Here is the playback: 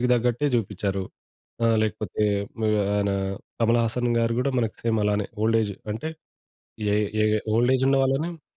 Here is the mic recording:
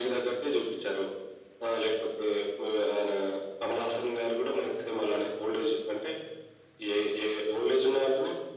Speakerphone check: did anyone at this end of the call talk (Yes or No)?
No